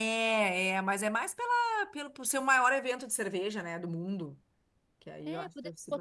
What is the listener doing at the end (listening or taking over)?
taking over